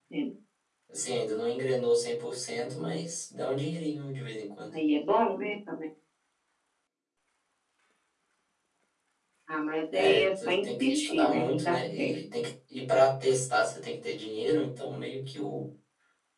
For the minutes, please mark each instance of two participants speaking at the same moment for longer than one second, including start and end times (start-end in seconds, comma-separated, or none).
9.9-12.1